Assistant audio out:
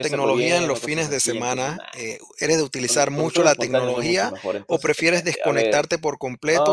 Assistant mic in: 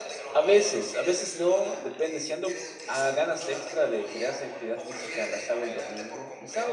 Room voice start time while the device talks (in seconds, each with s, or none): 0.3 s